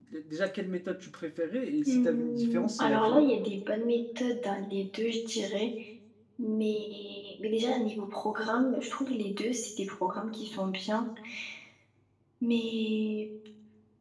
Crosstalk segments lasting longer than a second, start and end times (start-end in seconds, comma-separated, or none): 1.9-3.2